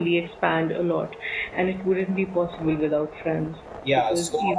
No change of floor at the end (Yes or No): No